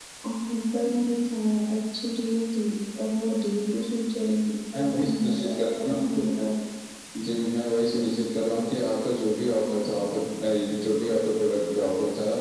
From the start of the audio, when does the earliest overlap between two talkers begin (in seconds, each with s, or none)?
4.7 s